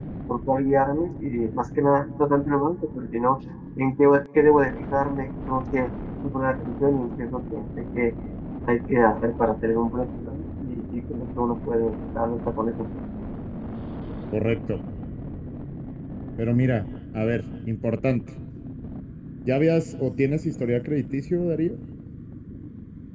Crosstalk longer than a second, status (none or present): none